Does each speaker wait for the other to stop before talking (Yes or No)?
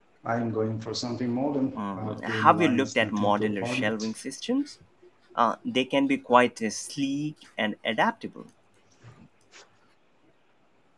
No